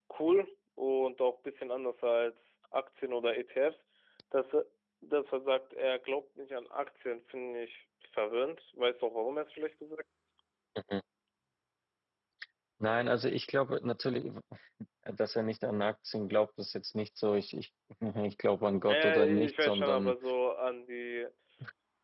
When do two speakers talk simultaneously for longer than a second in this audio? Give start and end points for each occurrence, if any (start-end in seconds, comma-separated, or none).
18.9-20.1